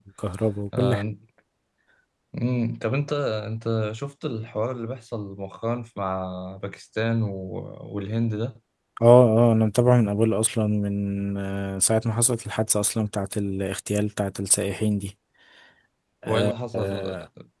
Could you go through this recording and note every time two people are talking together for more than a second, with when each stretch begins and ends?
none

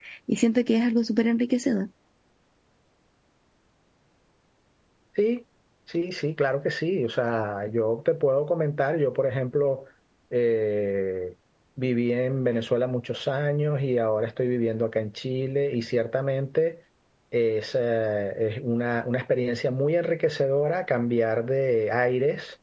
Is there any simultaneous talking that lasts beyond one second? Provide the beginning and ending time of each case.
none

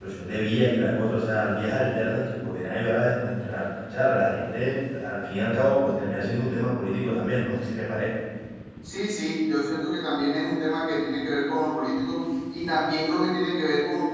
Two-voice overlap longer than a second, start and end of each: none

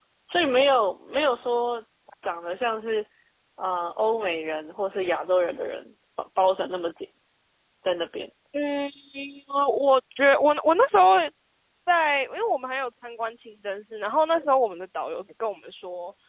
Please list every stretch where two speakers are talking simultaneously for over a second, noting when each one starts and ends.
none

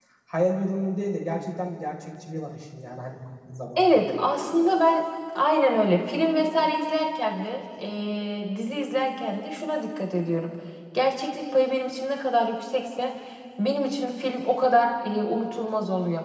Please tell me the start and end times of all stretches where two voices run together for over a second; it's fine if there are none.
none

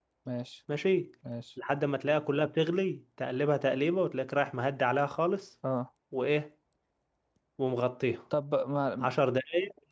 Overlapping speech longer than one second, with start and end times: none

